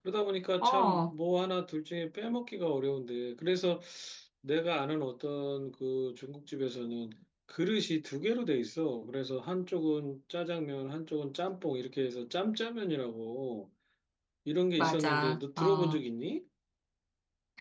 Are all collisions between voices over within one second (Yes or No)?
No